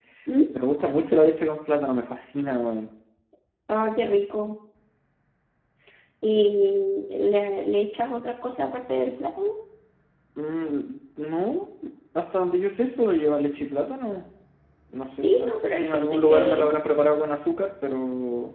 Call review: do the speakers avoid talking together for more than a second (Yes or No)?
No